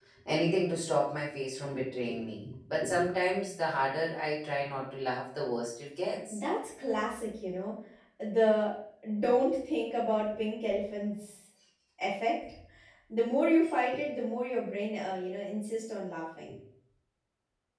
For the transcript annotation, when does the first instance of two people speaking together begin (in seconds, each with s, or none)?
none